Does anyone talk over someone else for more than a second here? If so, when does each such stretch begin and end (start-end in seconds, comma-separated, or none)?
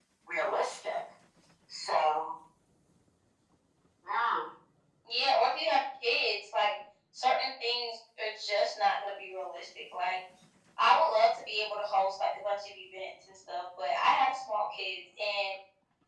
none